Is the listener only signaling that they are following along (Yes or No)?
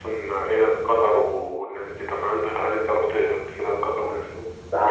No